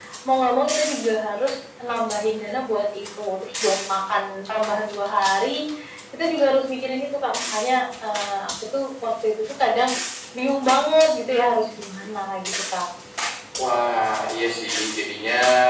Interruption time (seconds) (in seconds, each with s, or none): none